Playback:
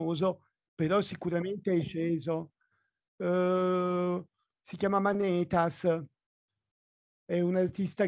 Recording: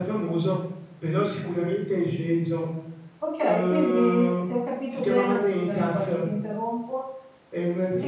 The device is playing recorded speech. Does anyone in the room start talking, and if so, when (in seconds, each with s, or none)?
3.2 s